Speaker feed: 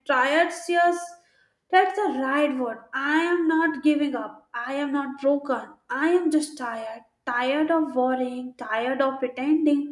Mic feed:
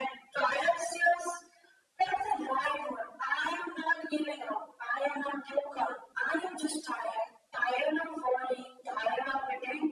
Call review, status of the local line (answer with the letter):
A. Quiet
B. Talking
A